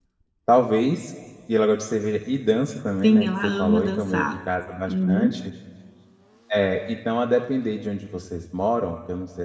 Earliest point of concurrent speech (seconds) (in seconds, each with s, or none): 3.0 s